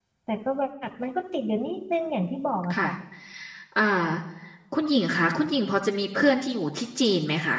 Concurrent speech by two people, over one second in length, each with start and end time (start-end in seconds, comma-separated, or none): none